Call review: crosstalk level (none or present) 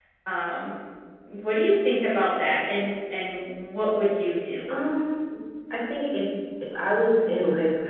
none